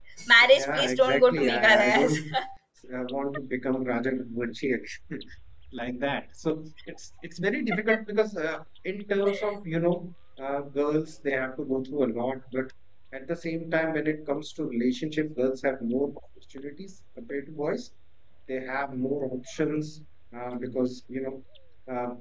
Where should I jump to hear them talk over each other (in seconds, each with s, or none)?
0.6 s